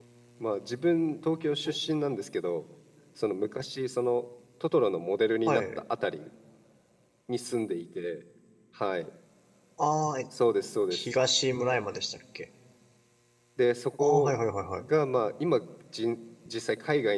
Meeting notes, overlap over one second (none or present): none